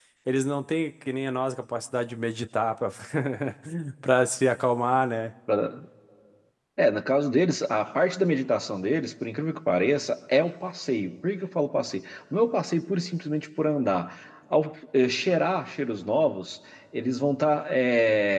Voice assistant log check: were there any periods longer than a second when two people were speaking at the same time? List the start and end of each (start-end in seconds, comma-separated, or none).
none